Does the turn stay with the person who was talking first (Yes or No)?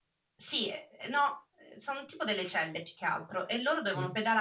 Yes